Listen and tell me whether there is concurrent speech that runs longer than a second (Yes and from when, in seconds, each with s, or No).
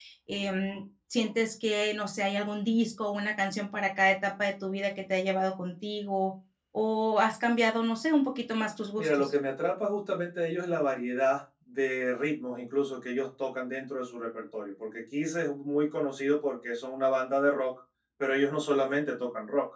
No